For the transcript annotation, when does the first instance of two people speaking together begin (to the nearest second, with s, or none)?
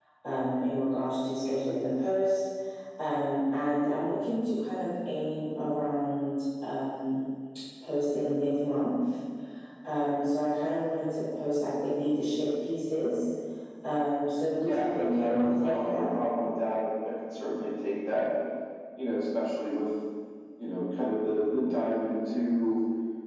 15 s